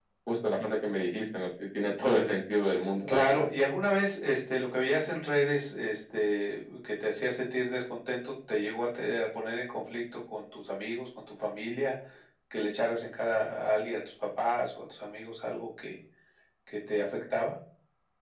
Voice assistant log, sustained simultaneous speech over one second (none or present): none